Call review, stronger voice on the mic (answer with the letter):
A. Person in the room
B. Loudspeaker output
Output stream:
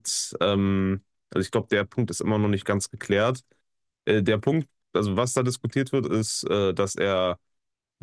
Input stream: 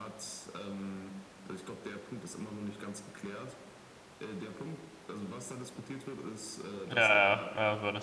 A